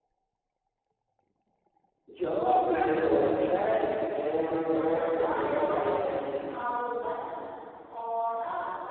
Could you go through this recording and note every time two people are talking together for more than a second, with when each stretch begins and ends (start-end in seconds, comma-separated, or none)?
4.7-6.1